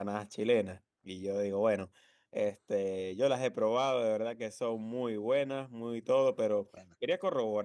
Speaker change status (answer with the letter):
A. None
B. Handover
A